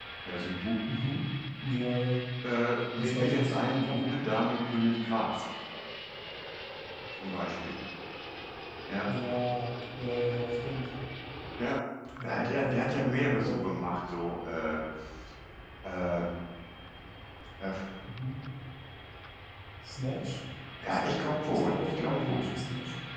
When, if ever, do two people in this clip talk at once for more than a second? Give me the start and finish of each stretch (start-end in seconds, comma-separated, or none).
3.0-4.2, 12.2-13.6, 20.9-22.5